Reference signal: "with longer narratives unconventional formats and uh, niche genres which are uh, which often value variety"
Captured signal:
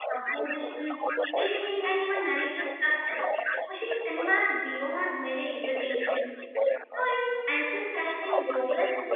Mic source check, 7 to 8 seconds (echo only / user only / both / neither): both